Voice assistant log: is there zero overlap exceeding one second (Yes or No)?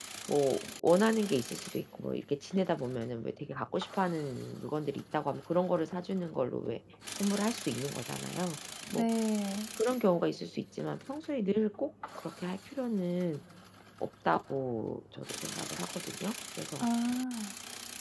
Yes